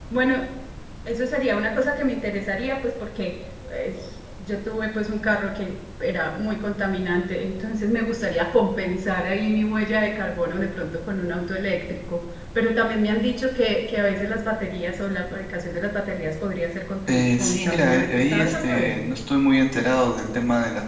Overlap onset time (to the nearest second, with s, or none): 17 s